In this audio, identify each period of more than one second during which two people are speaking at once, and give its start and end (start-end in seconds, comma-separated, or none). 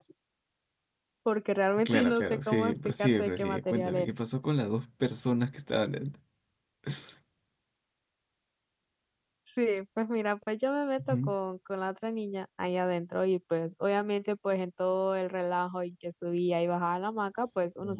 1.8-4.1